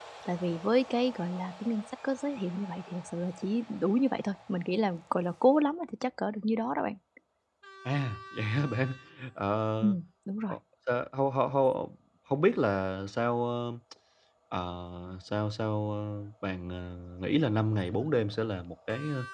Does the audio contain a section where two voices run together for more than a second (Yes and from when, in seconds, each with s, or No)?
No